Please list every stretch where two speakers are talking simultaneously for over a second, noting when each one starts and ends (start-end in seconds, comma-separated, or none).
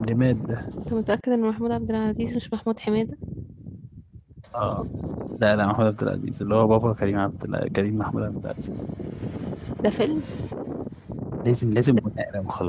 none